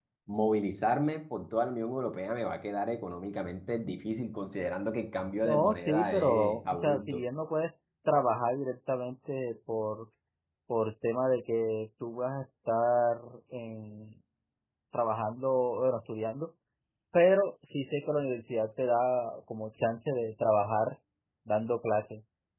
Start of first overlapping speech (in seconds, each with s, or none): 5.4 s